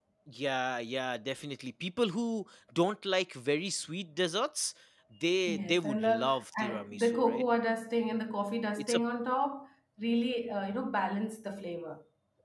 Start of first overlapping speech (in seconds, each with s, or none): 5.5 s